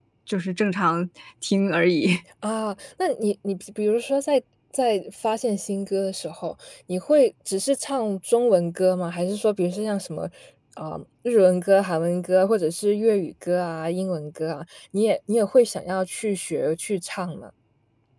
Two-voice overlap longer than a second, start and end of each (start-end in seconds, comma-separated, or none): none